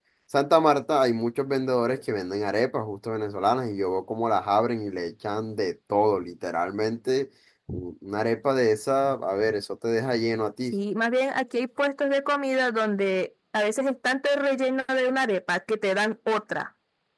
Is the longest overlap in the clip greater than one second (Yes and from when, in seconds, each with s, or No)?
No